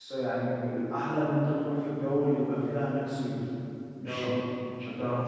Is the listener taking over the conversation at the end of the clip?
No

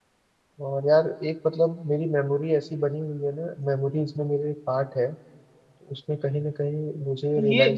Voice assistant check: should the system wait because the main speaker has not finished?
No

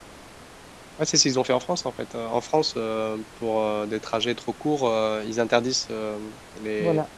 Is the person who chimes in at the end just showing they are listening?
Yes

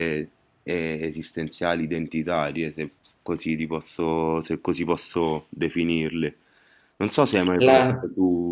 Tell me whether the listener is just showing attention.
Yes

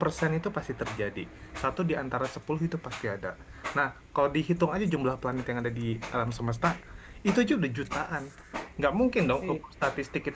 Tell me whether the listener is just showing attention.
Yes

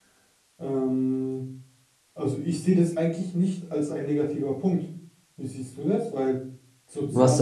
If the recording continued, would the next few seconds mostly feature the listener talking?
No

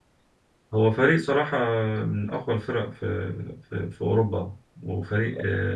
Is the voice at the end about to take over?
No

